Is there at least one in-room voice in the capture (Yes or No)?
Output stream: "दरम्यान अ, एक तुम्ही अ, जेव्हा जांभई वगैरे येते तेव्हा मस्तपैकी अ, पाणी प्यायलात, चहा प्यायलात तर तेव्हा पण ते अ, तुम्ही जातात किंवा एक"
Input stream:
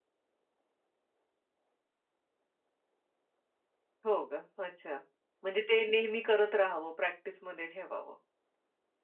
Yes